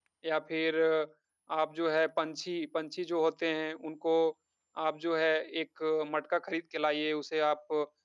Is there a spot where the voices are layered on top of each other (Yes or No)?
No